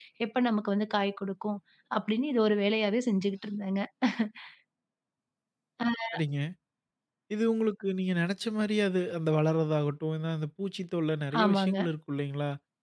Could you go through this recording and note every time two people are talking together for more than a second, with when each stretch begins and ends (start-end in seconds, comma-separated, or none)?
none